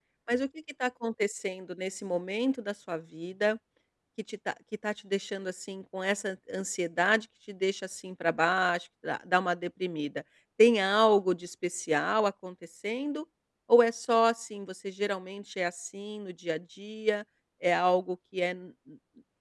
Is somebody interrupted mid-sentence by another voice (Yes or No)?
No